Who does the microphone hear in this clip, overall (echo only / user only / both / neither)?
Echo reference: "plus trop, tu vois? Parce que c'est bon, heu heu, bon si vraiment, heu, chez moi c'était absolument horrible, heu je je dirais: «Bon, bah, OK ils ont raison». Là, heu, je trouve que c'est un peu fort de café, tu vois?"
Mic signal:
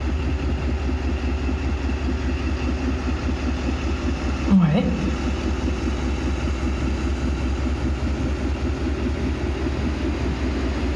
user only